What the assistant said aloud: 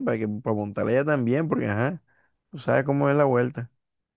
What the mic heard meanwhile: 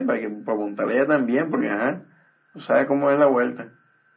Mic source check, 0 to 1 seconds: echo only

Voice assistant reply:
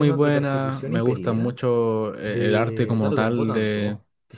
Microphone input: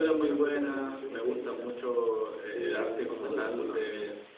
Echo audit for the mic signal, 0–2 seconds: echo only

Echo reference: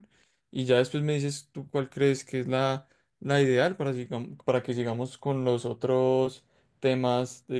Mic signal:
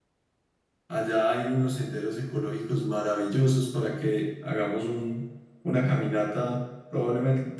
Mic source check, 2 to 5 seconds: user only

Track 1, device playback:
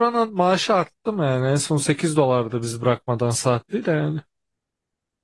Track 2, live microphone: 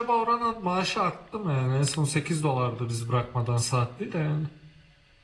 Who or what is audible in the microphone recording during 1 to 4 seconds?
echo only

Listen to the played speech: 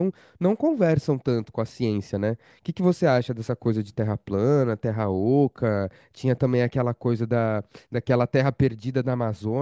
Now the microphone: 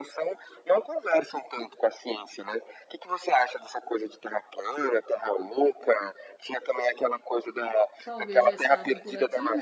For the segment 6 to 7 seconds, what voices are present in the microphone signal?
echo only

